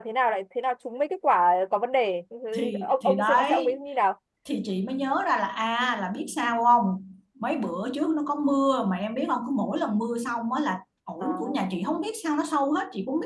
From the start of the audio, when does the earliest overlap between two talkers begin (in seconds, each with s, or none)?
2.6 s